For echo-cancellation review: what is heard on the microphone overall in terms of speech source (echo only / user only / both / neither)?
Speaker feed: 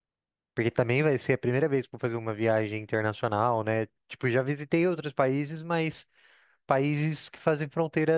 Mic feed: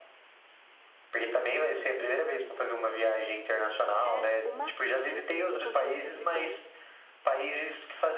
both